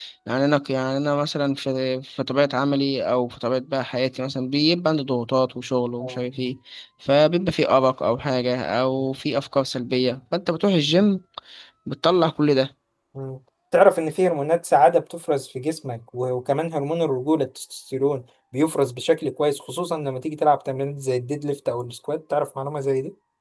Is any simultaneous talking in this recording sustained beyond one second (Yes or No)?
No